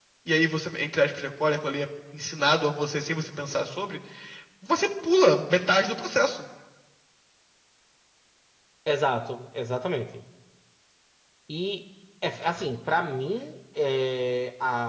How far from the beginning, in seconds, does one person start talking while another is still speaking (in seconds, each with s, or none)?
none